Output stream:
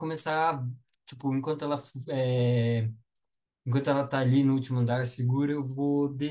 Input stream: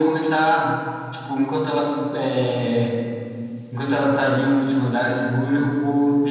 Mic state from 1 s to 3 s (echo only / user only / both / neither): echo only